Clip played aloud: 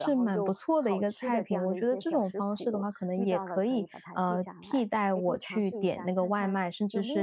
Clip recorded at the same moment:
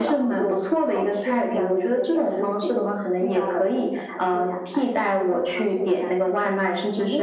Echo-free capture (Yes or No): No